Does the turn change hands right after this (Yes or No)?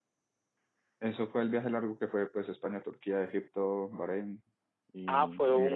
Yes